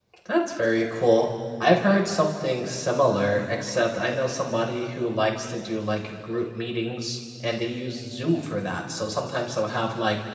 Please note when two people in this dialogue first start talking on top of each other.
none

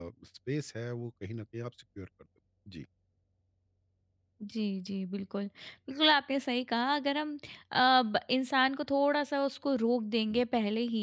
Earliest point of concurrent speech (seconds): none

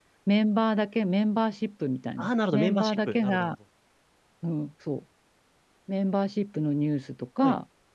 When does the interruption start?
2 s

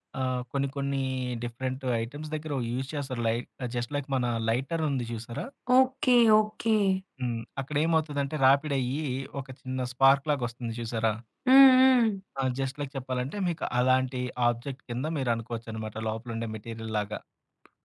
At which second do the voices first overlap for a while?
none

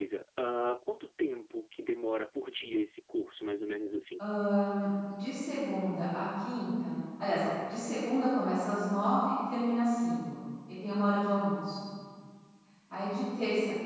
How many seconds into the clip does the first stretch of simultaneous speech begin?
none

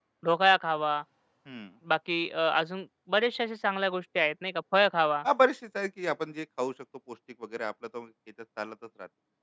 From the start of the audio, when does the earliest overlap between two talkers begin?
none

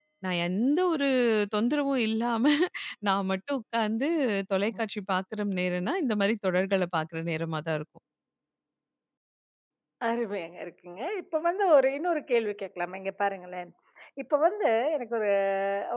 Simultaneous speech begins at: none

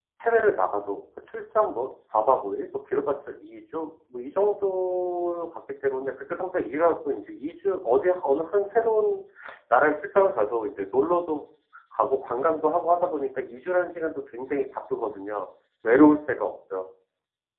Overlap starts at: none

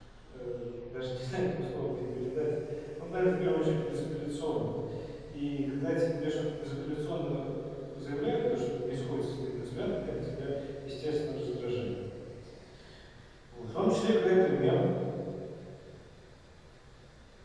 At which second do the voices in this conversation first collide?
none

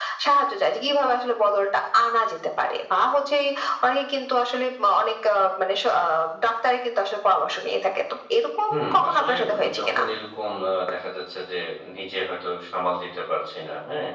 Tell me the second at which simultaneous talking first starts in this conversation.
9 s

